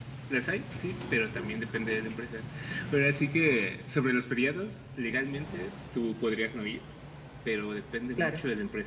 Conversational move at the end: listening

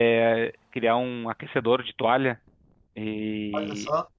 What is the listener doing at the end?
listening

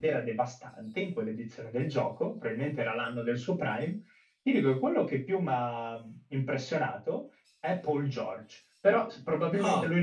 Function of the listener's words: listening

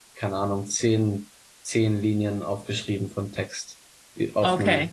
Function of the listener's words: taking over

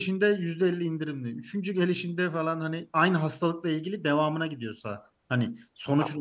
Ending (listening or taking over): taking over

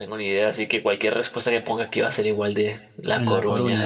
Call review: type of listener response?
taking over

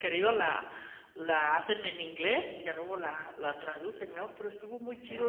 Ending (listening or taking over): listening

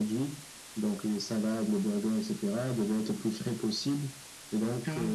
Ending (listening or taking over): listening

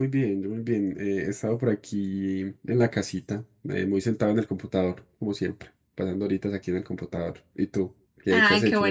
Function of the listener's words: taking over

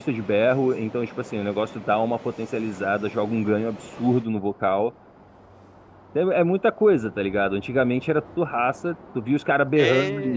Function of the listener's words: listening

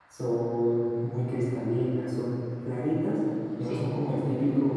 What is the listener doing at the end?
listening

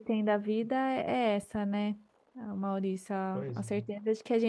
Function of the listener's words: listening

